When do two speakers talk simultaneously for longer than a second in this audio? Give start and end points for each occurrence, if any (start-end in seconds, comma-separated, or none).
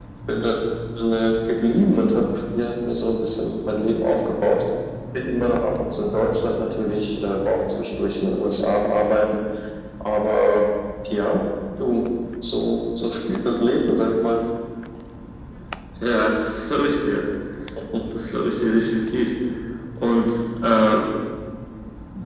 none